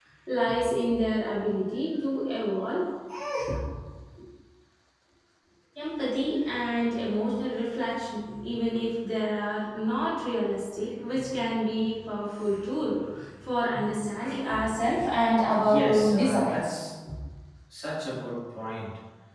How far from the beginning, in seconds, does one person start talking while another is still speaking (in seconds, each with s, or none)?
15.5 s